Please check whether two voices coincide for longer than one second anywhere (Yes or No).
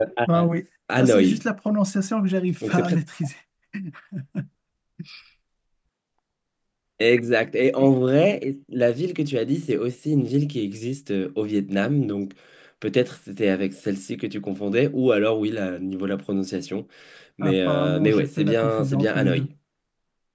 Yes